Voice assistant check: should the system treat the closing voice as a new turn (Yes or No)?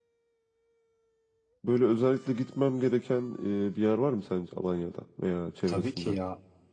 Yes